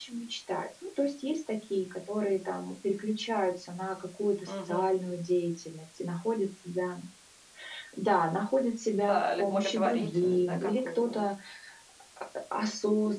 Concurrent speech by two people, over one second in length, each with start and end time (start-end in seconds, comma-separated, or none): 9.1-11.3